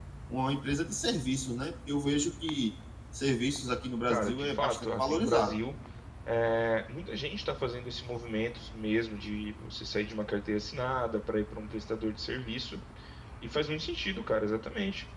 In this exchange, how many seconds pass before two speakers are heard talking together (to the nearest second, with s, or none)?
4 s